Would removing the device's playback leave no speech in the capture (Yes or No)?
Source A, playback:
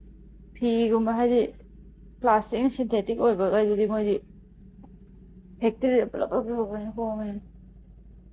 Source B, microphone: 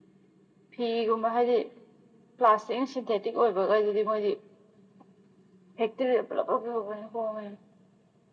Yes